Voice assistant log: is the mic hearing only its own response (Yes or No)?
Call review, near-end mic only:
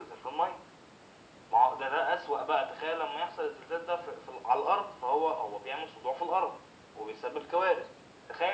Yes